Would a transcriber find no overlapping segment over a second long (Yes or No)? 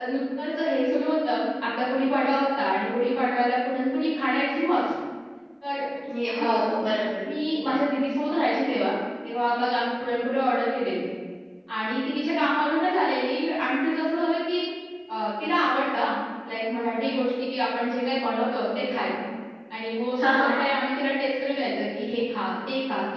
Yes